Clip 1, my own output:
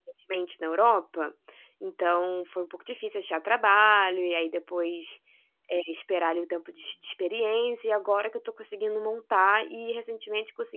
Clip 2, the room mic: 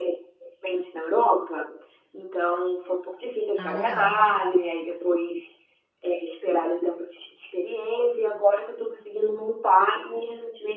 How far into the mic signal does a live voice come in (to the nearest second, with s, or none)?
4 s